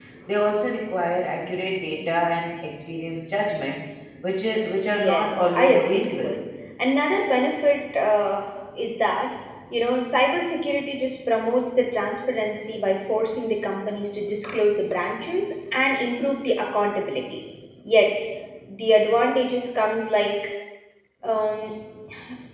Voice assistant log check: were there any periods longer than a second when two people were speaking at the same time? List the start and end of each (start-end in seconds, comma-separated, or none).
4.9-6.4